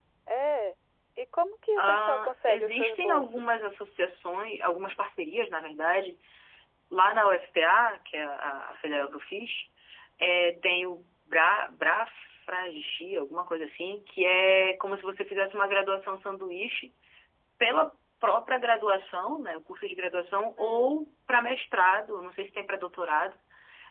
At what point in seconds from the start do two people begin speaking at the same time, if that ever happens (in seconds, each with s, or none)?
1.8 s